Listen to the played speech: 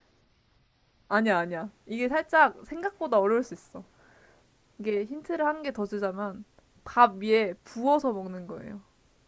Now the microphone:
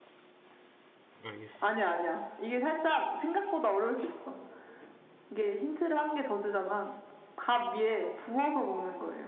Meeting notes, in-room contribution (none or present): present